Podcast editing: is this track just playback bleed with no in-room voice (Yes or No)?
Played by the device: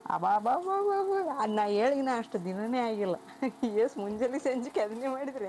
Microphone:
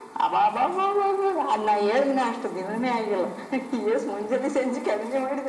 Yes